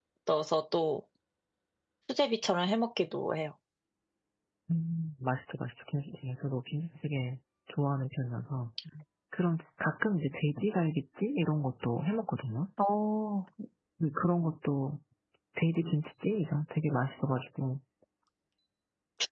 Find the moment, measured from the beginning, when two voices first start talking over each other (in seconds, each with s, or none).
none